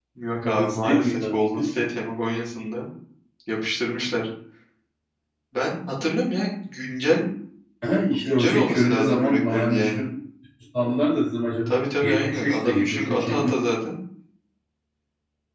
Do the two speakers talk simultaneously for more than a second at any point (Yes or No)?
Yes